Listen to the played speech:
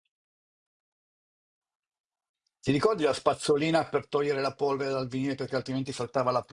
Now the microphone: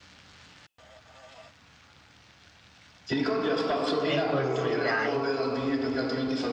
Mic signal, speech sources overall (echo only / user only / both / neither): both